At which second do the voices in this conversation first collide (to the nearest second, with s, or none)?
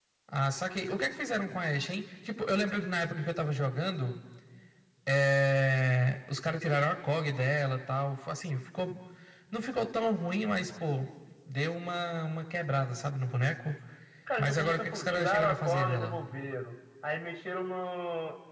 14 s